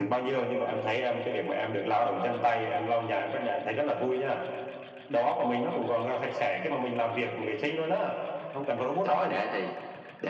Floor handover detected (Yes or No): Yes